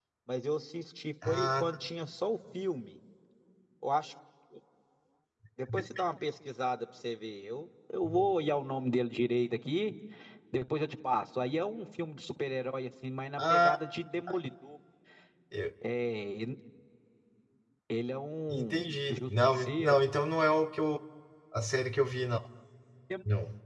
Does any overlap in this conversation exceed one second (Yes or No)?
Yes